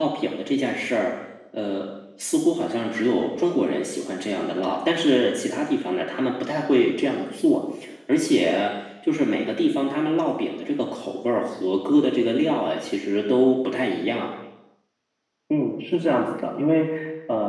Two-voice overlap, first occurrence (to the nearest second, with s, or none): none